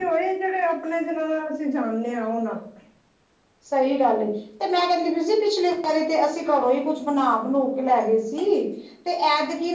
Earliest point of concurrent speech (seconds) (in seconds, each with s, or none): none